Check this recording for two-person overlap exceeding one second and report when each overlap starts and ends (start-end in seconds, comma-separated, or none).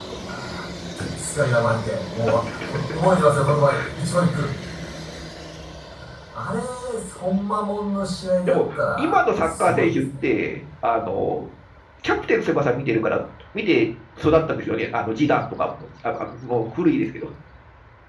8.5-10.0